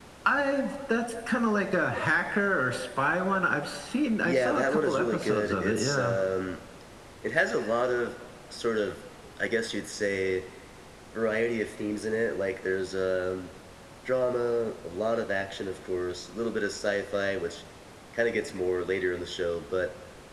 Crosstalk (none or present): present